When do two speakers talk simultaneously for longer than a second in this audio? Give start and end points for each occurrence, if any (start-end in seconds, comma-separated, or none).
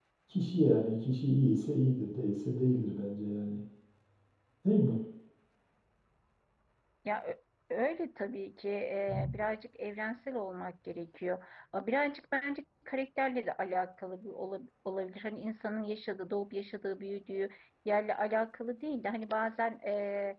none